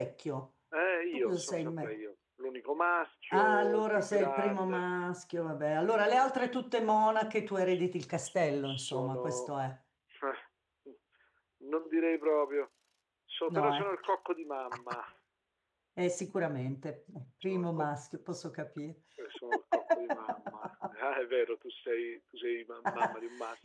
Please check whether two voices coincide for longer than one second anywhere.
Yes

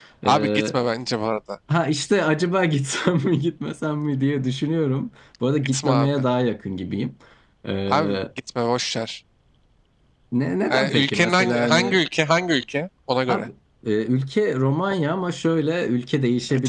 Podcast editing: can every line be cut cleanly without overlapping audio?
No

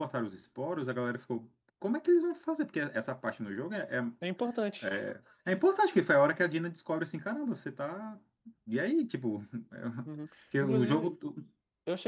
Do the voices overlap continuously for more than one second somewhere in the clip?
No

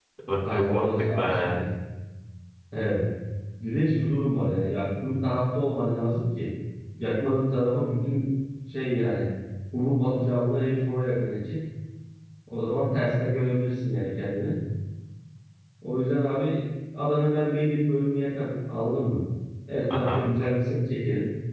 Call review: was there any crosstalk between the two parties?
Yes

